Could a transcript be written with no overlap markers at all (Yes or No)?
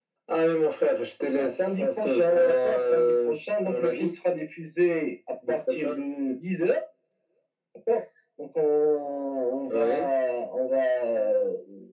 No